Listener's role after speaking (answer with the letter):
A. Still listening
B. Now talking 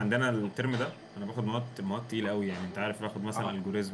B